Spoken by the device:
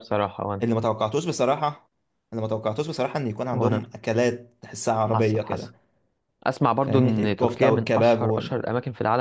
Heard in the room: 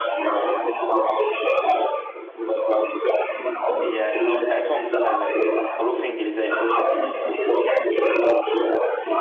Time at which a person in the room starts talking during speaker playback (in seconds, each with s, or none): 3.8 s